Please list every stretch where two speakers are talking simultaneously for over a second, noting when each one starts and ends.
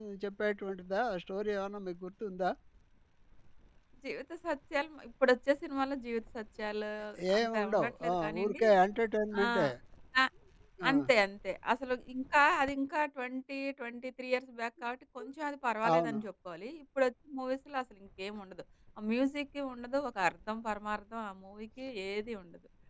7.4-8.6

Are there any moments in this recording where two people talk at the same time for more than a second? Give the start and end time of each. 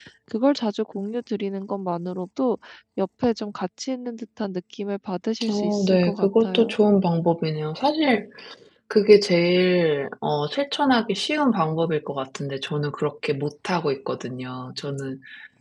5.5-6.8

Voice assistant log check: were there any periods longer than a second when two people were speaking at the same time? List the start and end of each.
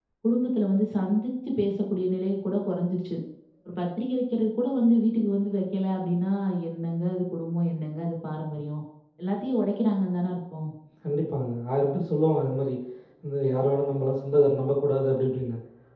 none

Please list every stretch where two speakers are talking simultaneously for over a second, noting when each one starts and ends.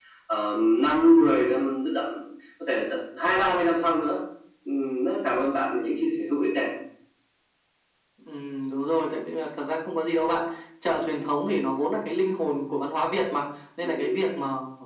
none

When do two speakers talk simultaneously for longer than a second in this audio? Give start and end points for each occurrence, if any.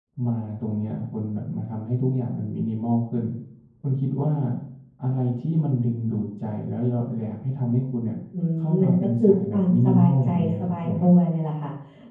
8.8-10.9

